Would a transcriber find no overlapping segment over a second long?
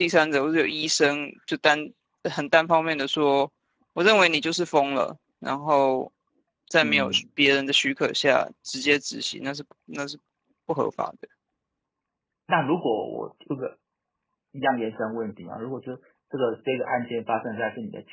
Yes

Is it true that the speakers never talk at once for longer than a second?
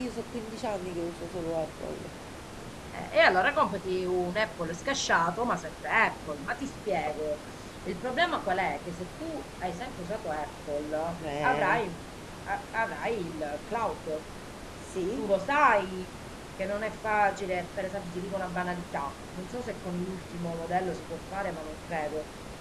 Yes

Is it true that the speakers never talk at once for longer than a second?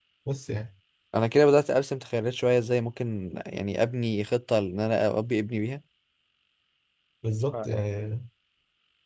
Yes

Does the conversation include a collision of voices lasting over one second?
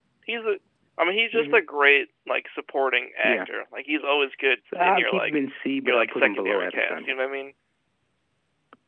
Yes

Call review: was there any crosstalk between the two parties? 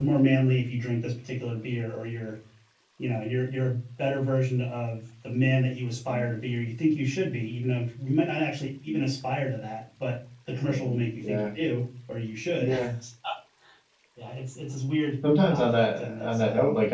Yes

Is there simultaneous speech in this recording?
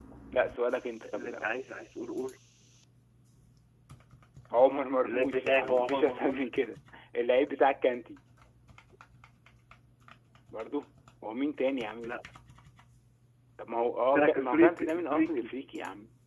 Yes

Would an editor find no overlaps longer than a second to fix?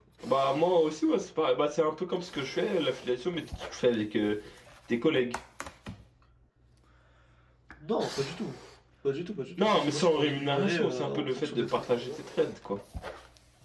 No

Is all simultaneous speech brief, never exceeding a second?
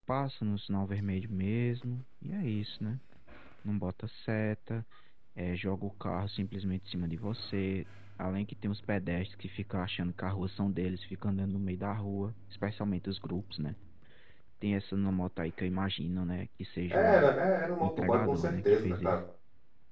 No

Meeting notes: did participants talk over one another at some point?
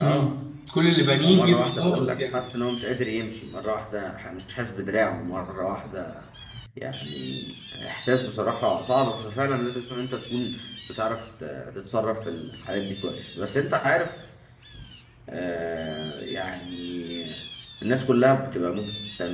Yes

